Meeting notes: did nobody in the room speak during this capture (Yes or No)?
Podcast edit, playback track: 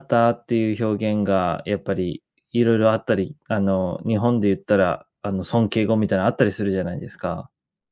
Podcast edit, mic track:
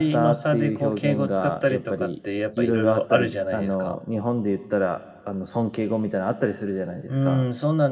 No